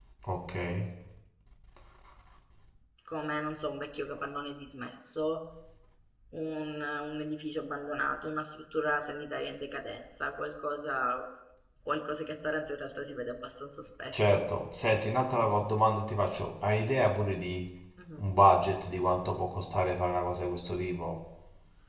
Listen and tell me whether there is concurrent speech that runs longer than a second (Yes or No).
No